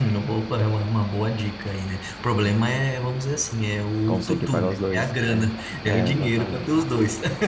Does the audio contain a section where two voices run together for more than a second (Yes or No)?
Yes